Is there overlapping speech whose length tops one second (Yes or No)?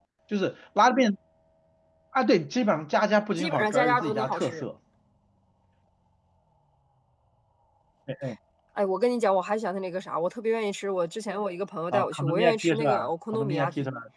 Yes